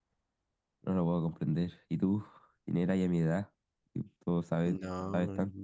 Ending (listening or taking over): taking over